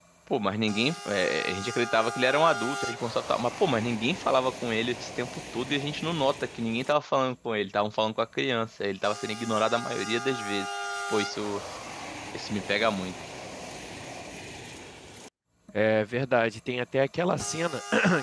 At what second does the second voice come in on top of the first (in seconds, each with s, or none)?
none